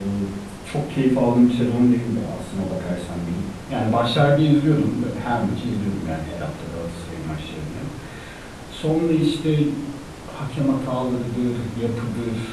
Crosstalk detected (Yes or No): No